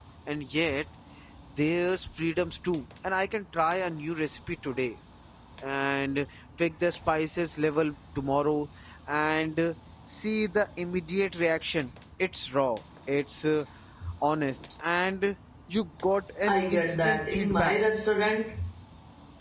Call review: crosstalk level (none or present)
present